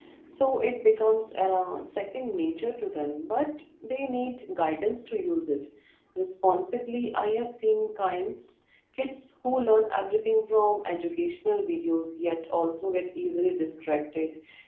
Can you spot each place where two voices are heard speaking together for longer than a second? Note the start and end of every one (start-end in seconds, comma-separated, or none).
none